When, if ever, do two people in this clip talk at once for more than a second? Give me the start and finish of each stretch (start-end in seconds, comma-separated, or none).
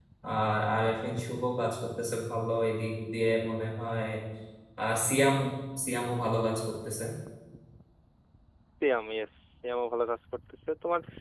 none